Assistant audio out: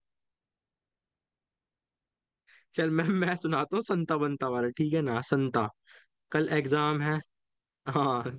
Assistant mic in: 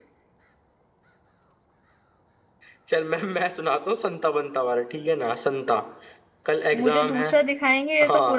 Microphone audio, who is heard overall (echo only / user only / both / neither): both